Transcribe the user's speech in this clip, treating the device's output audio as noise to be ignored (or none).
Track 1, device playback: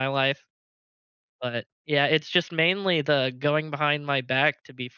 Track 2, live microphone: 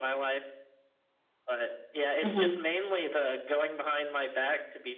Mm-hmm.